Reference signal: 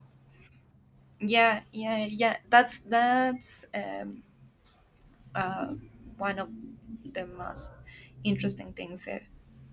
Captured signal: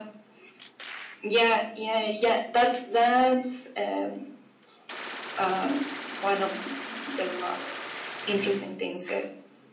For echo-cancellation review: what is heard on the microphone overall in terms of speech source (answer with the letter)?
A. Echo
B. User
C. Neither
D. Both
A